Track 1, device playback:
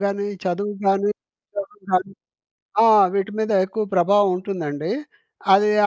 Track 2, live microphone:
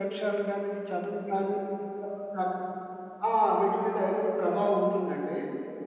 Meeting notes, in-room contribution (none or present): none